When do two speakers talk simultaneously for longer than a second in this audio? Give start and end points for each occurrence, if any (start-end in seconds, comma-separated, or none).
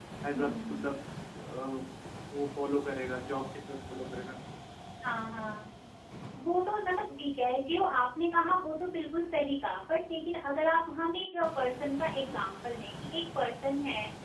none